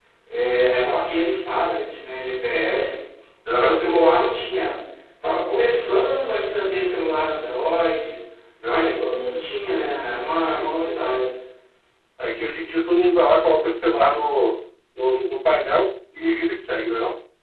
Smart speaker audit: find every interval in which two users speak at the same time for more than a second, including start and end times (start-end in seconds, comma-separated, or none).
none